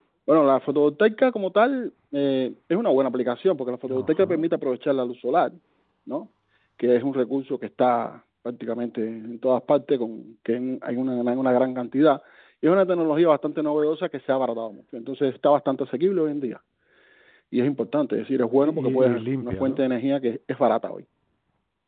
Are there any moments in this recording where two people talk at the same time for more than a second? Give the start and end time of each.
18.6-19.8

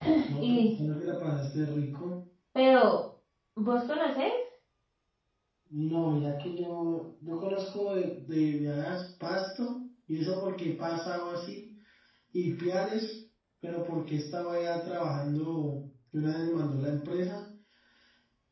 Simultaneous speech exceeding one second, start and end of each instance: none

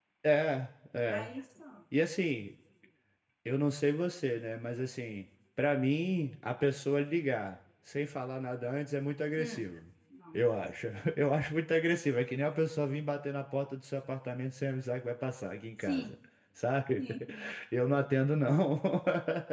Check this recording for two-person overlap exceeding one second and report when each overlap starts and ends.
none

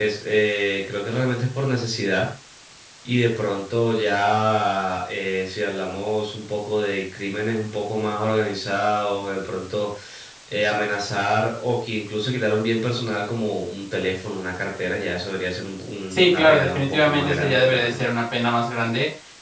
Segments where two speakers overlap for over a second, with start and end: 16.1-18.0

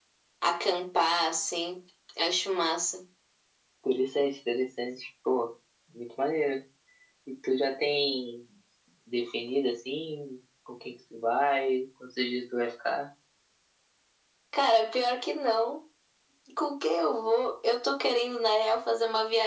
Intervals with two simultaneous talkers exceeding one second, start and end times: none

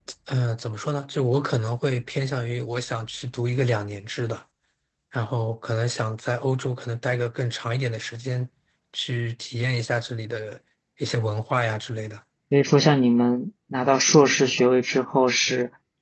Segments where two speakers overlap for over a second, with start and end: none

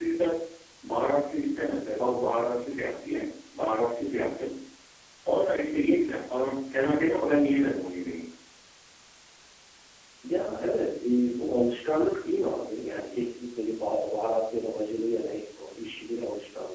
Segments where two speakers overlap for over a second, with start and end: none

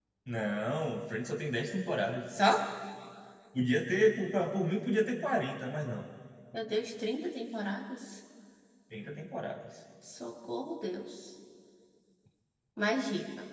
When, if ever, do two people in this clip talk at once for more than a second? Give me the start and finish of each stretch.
none

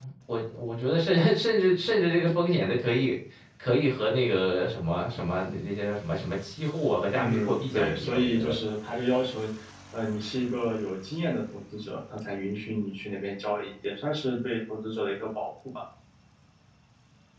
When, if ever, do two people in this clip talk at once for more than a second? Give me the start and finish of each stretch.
7.2-8.6

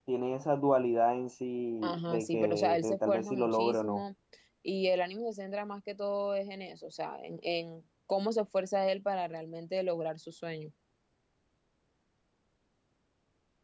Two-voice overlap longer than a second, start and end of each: 1.8-4.0

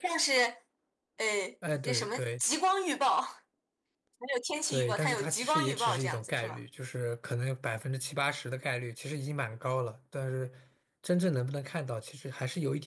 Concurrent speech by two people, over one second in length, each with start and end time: 4.7-6.6

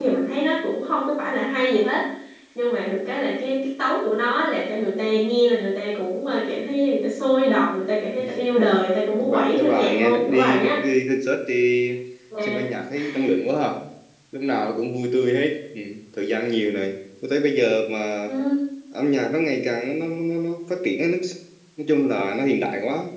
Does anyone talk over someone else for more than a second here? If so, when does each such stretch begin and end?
9.2-10.8

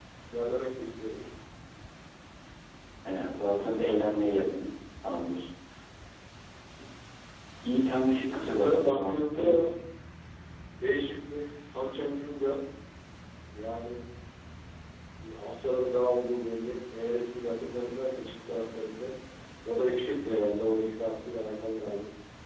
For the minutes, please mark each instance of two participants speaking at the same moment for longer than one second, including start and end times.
8.2-9.6

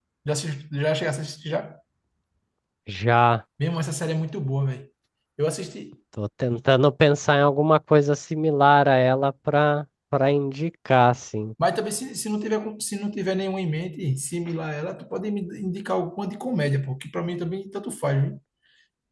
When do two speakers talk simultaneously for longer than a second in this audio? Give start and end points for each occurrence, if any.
none

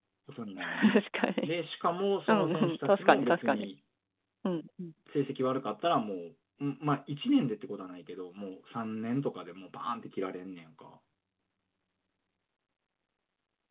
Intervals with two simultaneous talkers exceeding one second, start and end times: 2.3-3.7

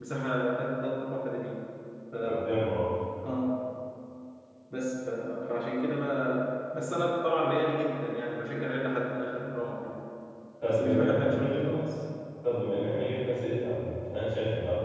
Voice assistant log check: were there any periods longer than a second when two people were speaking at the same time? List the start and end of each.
10.6-11.9

